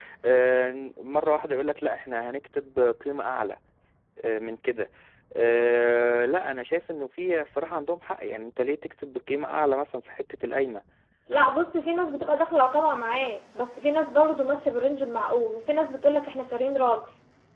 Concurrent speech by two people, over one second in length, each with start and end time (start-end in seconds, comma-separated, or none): none